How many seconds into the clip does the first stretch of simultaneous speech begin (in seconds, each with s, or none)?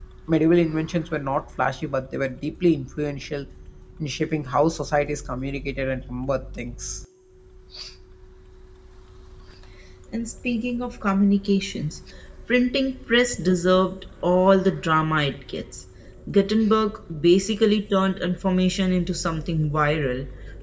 none